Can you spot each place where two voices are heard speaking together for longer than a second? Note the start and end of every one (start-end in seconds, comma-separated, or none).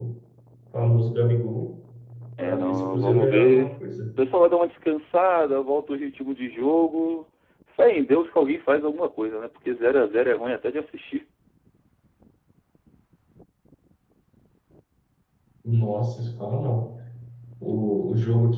2.4-3.7